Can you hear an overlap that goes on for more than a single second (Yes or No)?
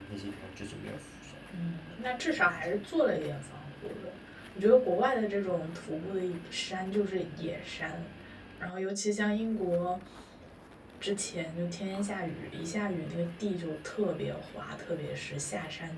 No